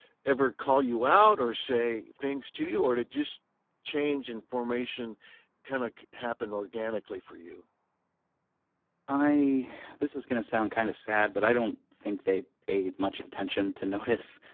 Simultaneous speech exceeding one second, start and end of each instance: none

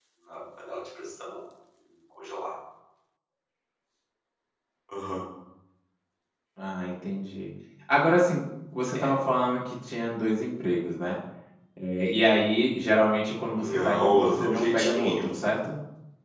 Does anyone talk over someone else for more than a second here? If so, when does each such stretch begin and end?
13.5-15.3

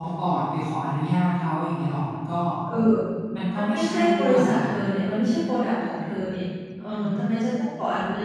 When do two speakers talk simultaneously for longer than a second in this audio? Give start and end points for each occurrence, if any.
3.5-4.8

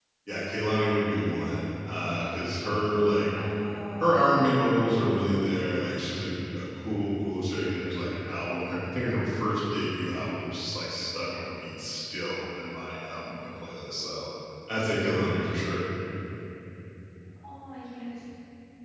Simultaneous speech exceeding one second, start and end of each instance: none

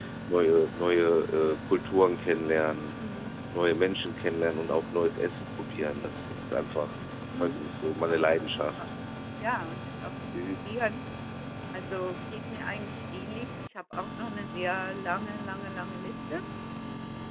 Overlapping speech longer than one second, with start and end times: 7.4-8.7

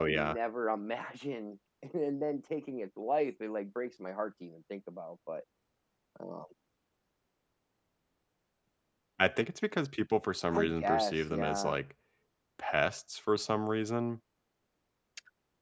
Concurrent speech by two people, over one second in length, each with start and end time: 10.5-11.8

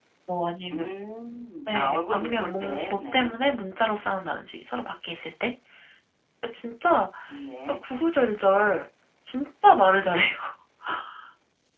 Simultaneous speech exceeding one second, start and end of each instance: 1.7-3.3

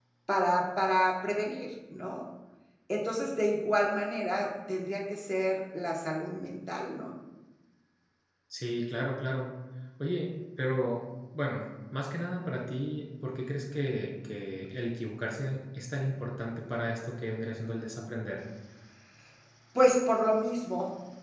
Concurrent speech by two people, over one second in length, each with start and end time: none

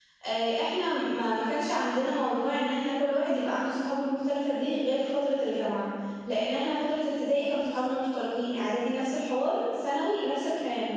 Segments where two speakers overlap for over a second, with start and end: none

